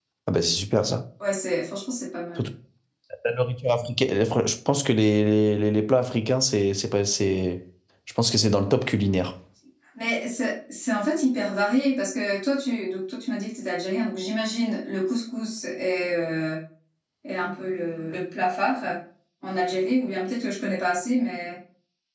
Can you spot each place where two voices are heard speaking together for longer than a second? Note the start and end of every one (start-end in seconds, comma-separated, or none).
none